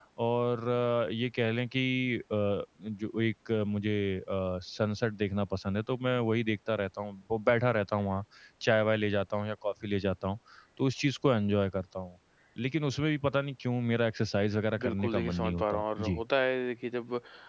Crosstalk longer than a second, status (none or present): present